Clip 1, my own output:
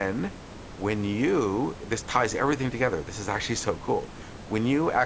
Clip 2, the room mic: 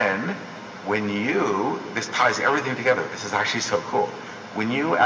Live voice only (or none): none